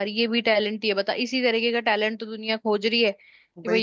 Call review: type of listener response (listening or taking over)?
listening